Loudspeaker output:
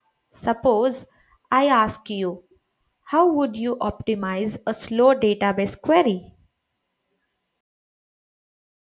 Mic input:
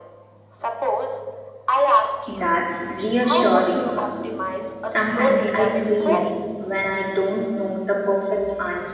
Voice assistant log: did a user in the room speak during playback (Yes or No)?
Yes